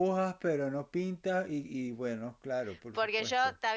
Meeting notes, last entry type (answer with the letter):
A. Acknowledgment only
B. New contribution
B